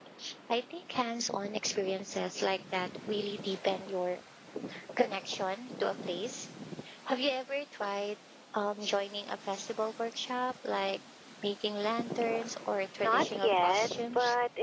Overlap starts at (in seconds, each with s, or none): 13.0 s